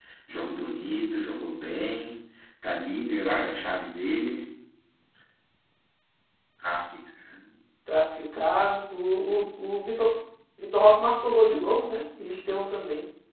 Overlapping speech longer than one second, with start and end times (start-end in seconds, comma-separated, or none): none